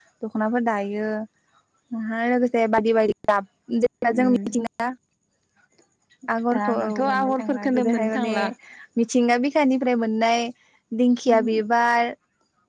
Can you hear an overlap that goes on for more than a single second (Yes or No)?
Yes